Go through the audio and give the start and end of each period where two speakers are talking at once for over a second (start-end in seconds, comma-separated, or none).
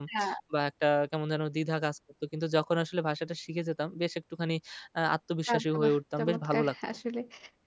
5.5-6.7